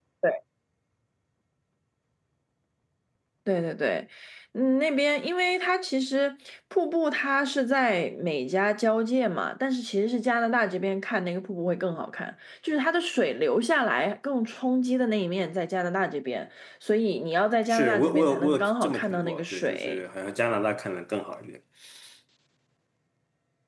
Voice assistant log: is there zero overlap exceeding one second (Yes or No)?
No